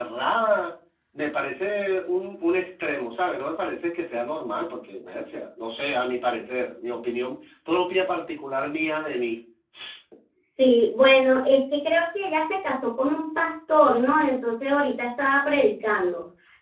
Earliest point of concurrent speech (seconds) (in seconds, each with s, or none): none